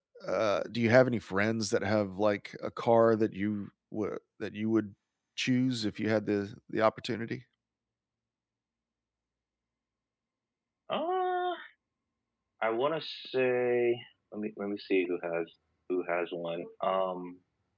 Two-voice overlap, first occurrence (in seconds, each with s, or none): none